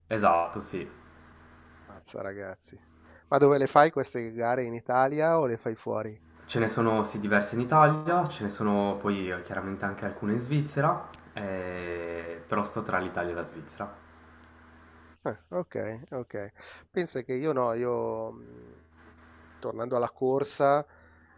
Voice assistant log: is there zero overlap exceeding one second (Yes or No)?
Yes